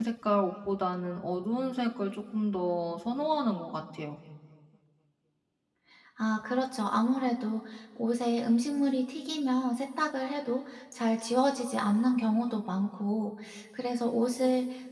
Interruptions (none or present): none